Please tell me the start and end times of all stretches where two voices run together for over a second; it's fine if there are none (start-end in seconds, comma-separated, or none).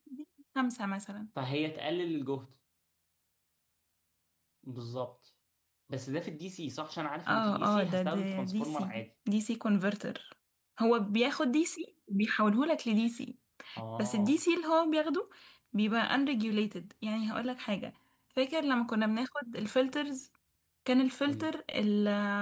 7.3-8.9